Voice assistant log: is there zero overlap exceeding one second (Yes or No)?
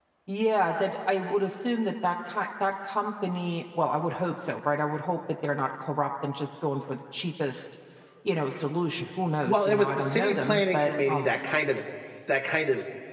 No